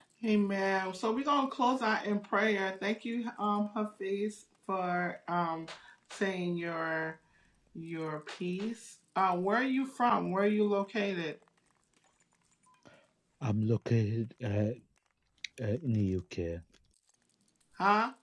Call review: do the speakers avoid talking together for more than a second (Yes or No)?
Yes